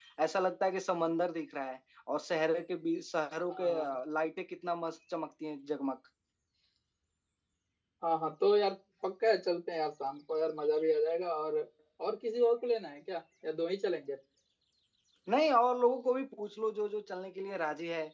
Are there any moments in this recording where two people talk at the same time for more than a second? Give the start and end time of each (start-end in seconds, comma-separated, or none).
none